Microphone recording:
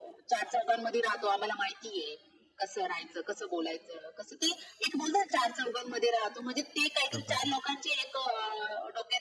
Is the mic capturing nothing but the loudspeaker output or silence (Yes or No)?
No